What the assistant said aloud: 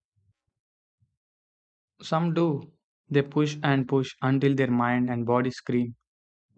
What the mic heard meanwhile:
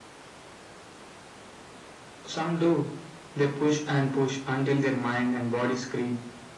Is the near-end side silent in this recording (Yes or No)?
Yes